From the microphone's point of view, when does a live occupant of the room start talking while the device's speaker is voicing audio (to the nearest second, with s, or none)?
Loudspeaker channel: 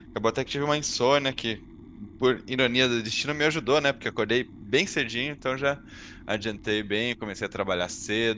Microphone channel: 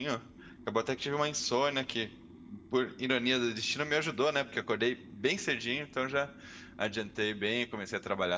none